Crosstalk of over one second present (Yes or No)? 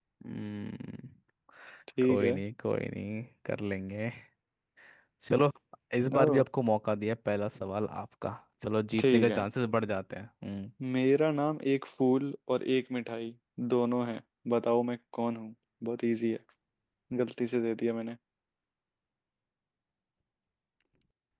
No